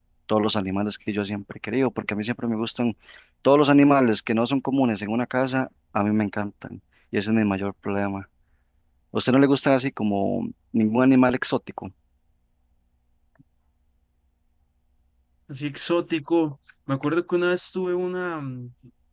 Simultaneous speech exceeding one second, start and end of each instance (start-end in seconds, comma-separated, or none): none